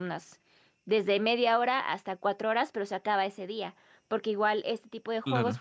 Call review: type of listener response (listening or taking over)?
listening